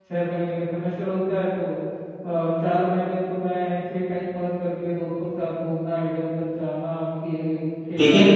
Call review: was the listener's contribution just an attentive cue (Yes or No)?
No